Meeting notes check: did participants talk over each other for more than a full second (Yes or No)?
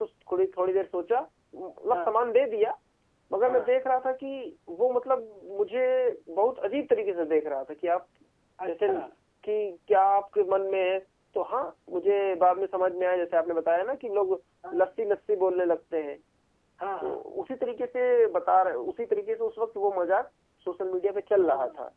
No